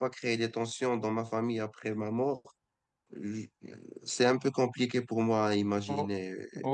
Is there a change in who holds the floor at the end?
Yes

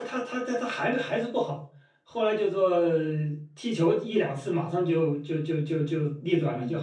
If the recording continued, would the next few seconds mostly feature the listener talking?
Yes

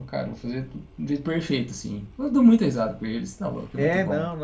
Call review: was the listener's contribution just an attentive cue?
No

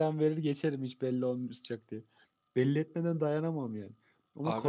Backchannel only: Yes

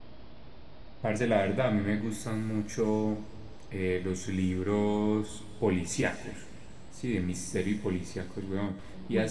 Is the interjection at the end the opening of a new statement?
No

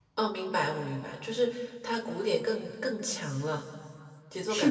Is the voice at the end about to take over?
Yes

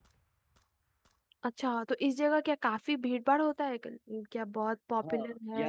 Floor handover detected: Yes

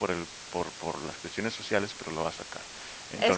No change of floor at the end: No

